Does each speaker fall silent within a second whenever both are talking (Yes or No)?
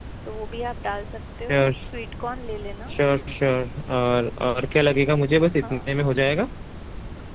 Yes